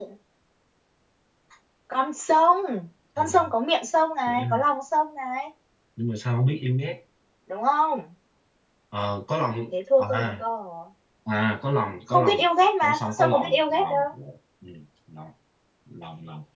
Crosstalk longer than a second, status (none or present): present